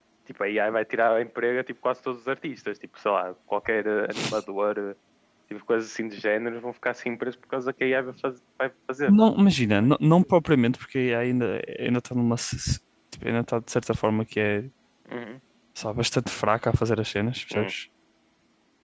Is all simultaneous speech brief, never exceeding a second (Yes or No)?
Yes